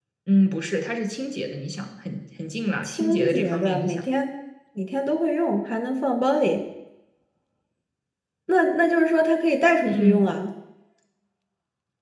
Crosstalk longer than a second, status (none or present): present